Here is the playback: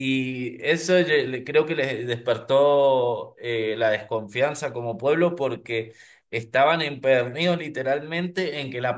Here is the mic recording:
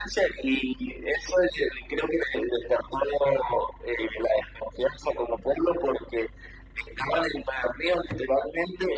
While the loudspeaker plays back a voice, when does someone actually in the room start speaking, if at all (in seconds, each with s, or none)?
none